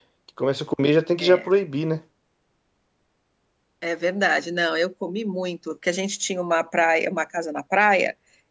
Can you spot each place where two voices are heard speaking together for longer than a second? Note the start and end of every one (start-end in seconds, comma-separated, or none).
none